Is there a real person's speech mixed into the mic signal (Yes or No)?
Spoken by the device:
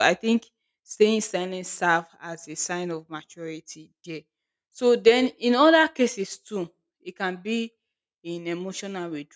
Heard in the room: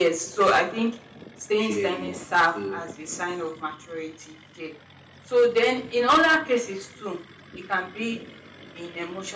Yes